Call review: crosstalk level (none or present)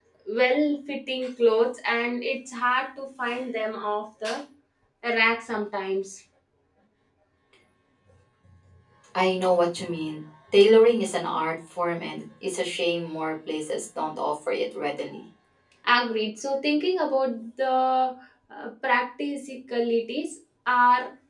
none